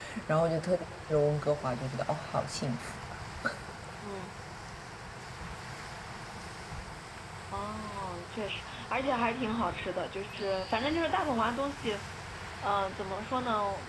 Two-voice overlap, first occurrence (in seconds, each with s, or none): none